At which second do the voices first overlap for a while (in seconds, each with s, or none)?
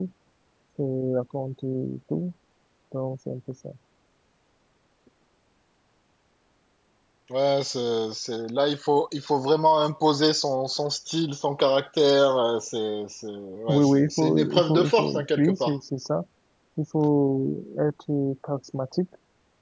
13.7 s